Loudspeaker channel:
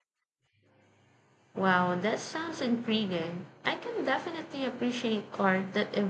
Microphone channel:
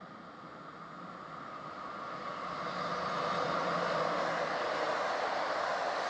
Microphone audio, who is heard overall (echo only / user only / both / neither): neither